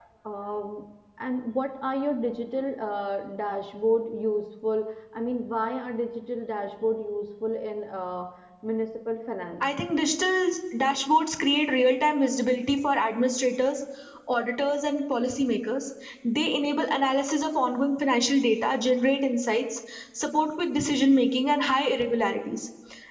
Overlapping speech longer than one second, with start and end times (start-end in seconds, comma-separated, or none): none